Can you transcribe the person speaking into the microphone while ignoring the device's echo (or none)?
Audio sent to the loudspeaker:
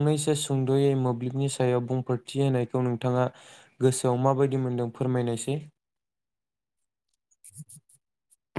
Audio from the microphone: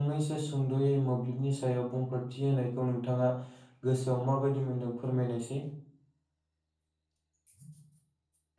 none